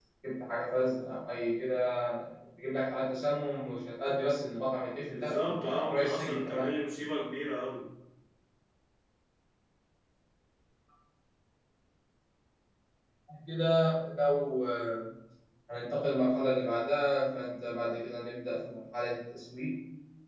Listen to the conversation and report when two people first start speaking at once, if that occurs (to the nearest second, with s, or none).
5 s